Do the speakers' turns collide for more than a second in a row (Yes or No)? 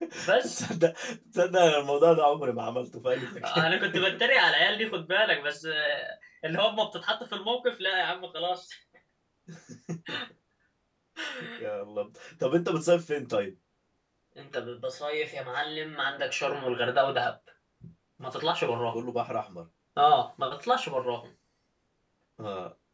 No